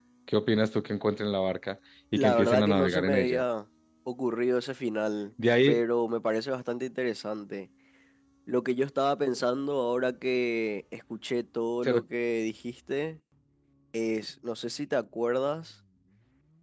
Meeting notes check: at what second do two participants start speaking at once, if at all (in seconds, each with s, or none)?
2.2 s